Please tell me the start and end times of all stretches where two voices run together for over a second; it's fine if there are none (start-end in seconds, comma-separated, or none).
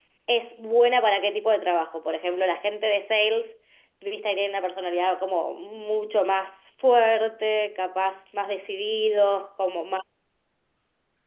none